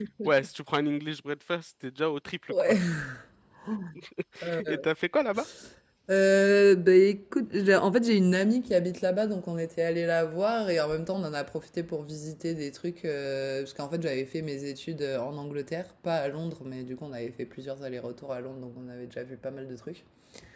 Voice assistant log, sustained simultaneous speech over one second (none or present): none